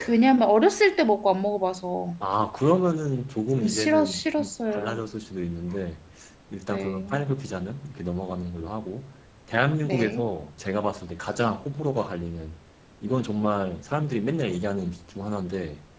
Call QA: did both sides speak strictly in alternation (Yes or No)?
No